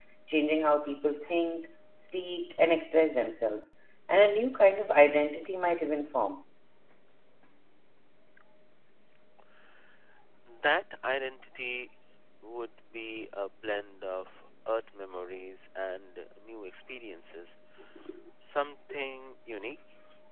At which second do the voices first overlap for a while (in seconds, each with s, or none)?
none